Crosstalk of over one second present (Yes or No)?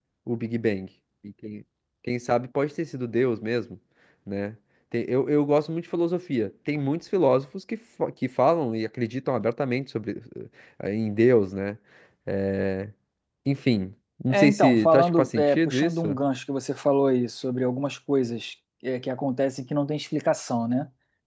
Yes